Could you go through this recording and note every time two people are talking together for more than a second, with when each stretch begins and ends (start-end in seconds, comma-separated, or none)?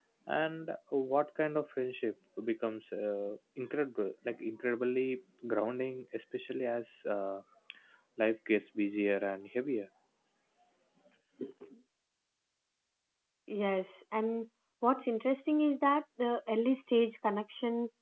none